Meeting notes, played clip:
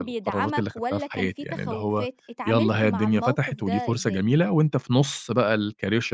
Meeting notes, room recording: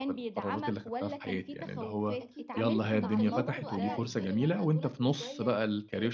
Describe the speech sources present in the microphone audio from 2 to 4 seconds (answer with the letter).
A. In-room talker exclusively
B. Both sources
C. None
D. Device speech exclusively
B